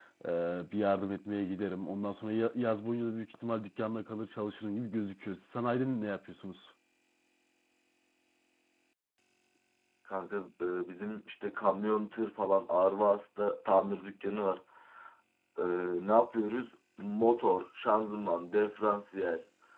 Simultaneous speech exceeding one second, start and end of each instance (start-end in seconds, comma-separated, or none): none